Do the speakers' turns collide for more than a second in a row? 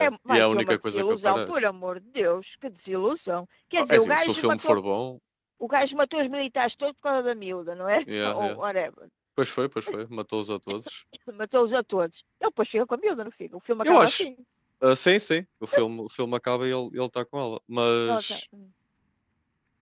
Yes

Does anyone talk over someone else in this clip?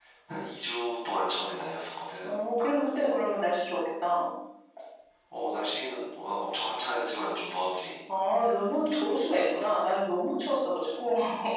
No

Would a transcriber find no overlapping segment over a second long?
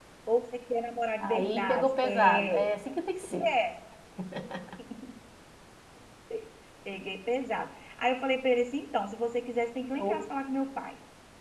No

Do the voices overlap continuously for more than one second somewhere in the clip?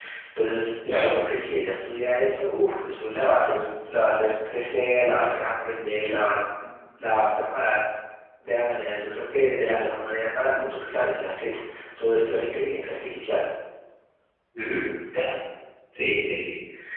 No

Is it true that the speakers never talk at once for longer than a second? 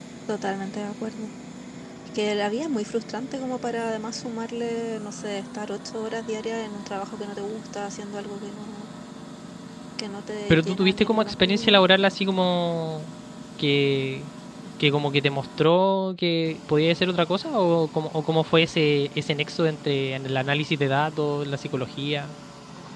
No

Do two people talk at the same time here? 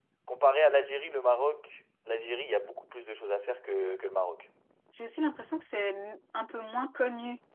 No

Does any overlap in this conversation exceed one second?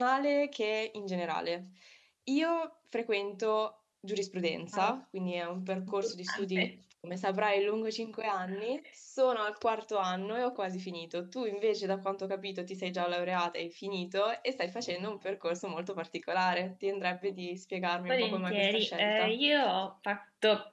Yes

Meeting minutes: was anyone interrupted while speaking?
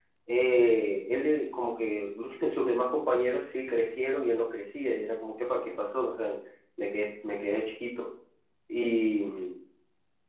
No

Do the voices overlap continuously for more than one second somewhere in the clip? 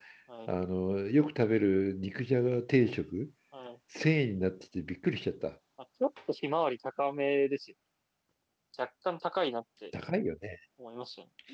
No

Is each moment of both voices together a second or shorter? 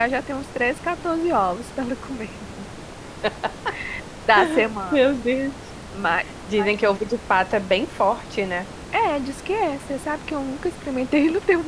Yes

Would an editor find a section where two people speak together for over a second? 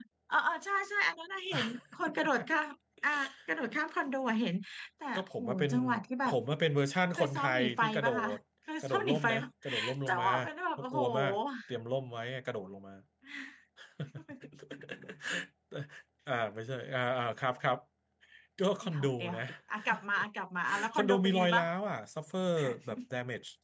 Yes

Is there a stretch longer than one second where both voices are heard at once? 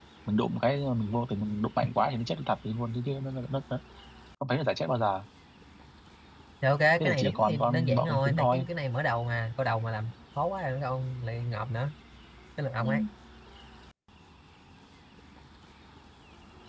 Yes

